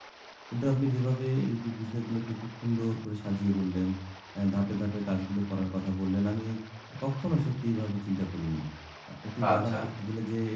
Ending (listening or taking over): listening